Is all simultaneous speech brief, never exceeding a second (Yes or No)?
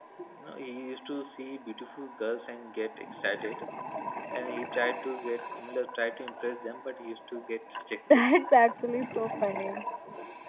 Yes